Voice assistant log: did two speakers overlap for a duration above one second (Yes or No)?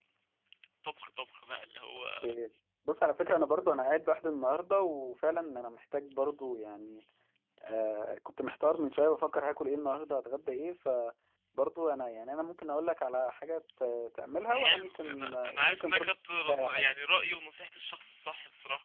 Yes